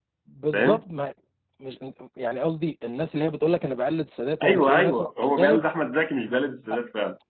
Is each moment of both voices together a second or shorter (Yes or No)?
No